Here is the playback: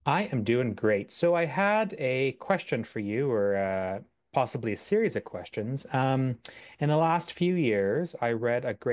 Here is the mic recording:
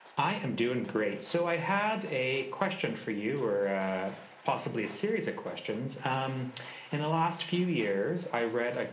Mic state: echo only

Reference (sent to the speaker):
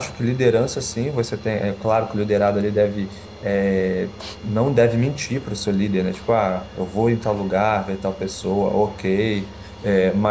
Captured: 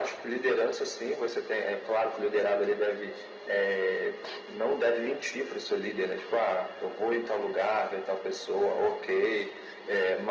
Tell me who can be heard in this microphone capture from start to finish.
echo only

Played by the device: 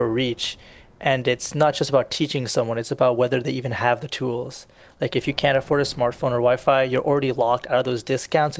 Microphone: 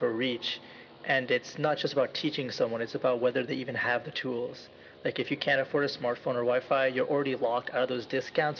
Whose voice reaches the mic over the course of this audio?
echo only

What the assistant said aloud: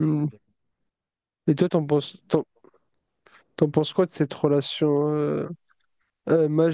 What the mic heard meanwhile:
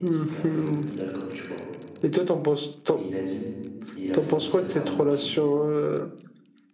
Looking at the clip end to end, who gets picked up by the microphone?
both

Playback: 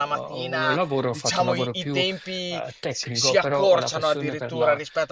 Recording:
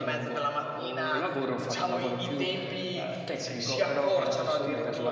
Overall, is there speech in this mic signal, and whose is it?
both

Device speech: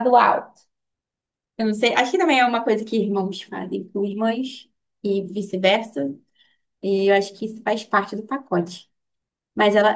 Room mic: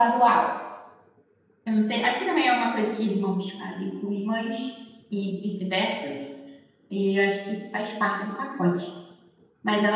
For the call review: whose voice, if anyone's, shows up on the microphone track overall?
echo only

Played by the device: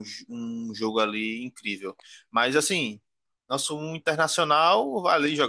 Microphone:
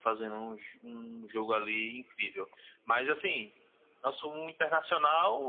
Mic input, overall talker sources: echo only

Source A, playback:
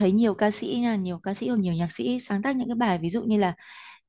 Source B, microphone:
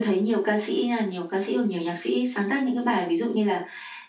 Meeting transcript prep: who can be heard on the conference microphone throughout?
echo only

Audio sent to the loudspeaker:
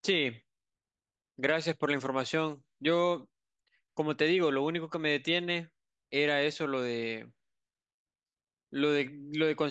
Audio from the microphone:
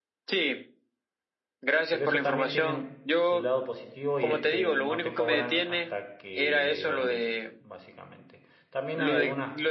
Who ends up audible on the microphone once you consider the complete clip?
both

